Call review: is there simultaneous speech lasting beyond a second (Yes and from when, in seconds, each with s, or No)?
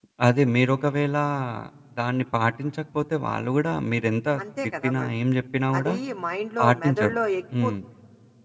No